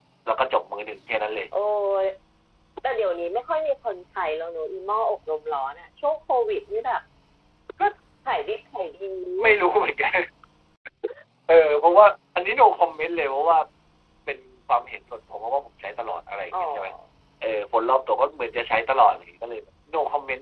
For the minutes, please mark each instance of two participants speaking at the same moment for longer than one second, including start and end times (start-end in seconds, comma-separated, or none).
none